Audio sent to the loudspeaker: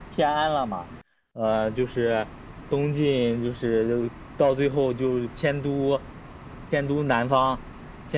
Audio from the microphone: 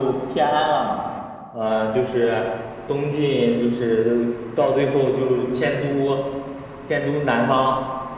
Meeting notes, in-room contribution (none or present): none